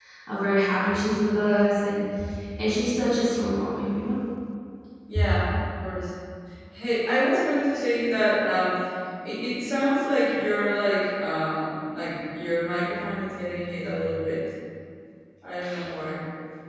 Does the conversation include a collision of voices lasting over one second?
No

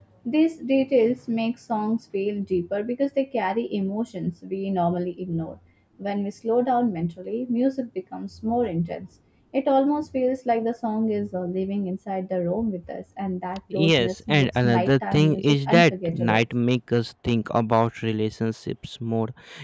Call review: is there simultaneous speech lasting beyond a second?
Yes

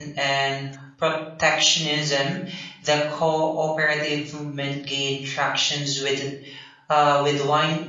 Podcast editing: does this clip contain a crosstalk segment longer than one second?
No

